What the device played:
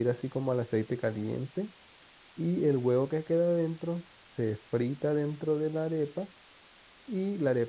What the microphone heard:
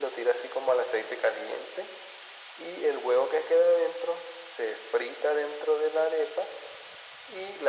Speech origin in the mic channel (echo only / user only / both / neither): echo only